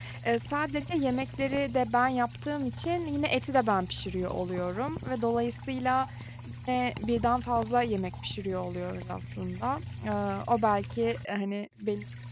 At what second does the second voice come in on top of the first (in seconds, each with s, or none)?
none